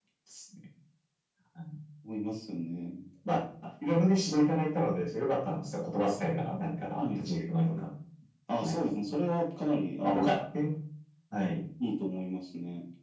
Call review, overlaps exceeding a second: none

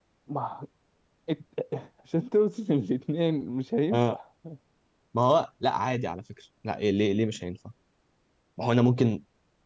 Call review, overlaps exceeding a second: none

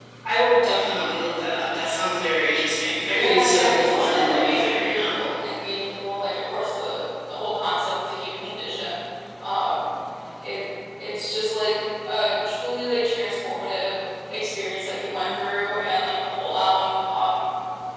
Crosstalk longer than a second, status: present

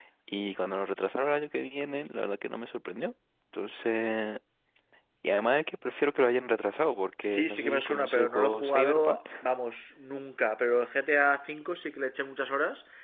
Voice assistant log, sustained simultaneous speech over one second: present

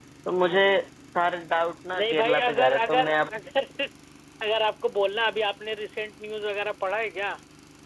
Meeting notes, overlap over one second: present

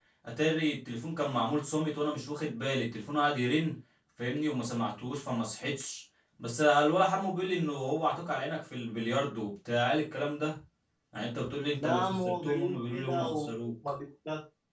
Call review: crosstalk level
present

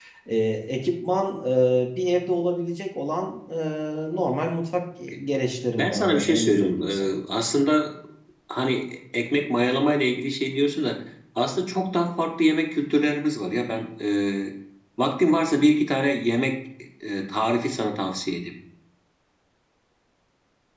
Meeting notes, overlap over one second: present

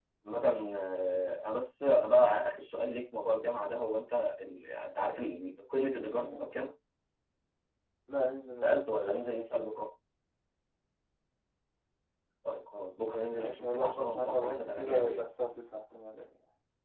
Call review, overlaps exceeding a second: present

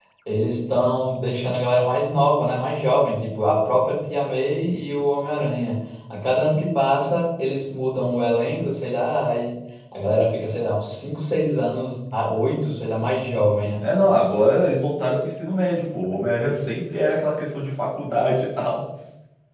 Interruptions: none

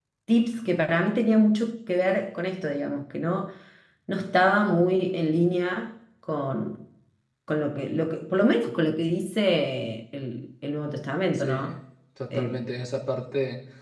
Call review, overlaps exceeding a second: none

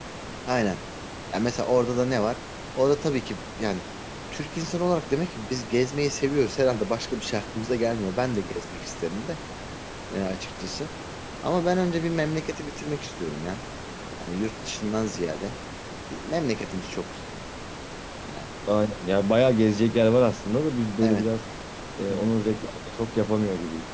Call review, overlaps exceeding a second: none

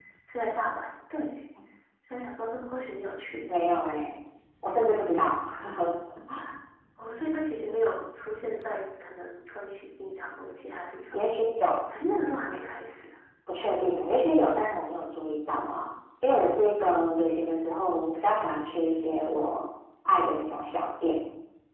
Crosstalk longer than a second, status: none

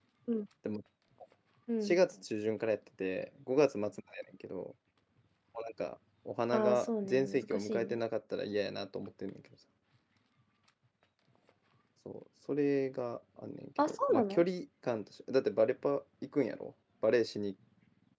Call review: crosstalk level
present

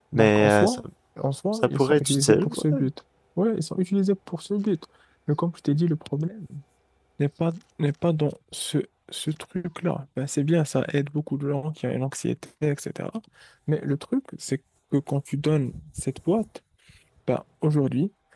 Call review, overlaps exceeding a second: present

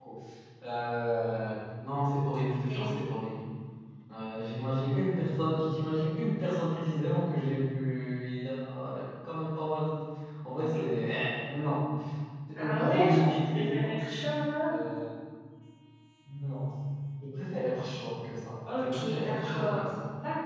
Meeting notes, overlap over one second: present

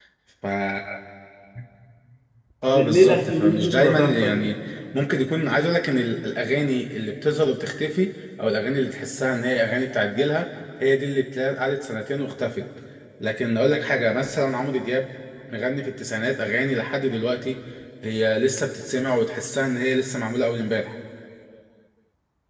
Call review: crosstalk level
present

